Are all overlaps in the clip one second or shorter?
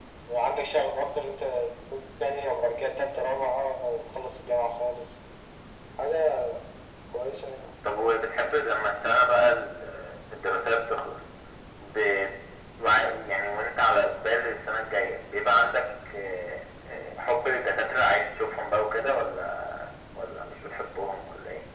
Yes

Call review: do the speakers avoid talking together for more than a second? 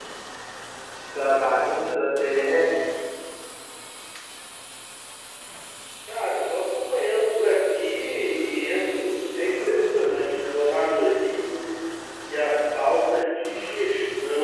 Yes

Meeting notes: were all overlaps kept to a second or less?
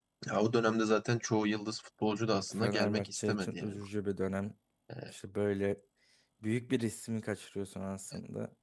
No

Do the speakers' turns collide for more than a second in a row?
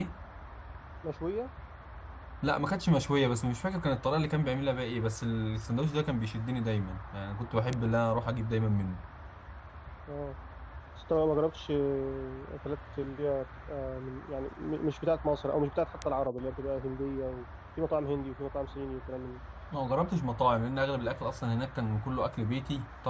No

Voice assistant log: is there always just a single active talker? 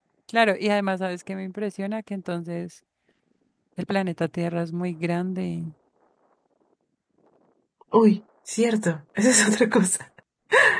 Yes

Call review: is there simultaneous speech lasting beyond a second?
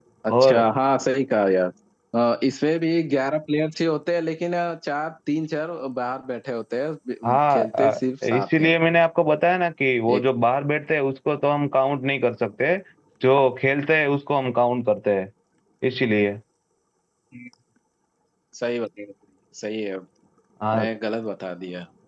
Yes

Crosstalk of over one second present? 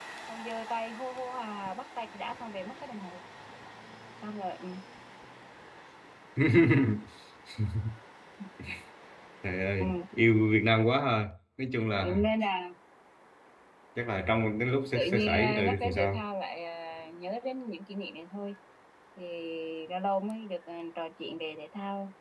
Yes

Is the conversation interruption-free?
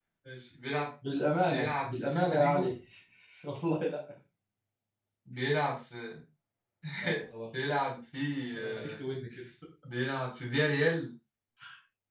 No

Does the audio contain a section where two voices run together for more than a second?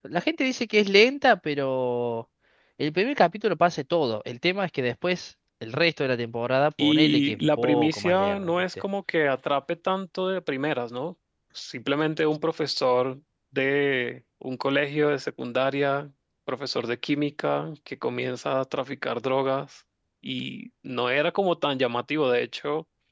Yes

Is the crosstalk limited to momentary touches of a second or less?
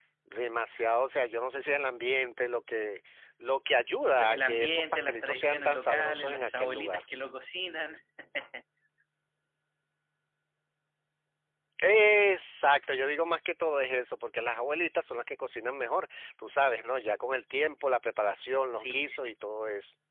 No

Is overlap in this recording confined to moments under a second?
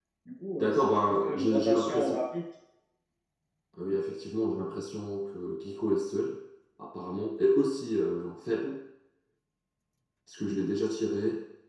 No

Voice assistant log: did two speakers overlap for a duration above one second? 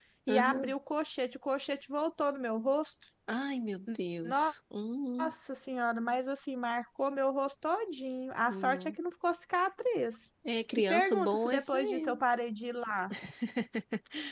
Yes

